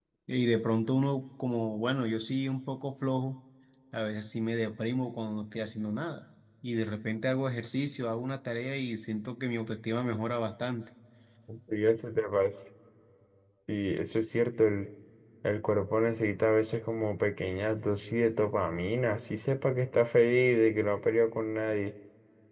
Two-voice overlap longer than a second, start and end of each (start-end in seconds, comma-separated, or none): none